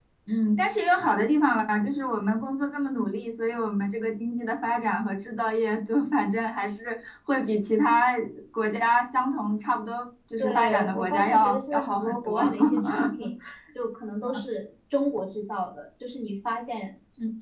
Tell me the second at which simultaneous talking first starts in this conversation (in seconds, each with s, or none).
10.4 s